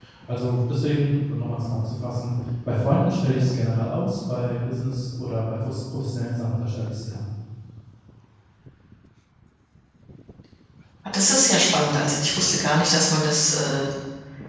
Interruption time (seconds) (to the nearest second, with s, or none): none